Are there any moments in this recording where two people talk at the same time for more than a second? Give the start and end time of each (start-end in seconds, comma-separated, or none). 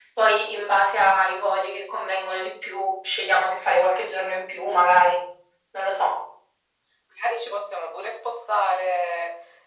none